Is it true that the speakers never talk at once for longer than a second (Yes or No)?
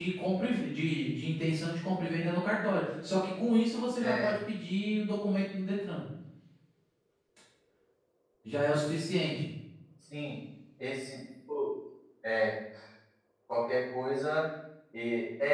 Yes